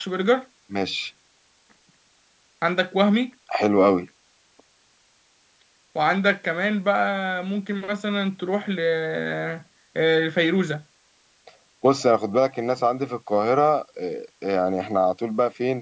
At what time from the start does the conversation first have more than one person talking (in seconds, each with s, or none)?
none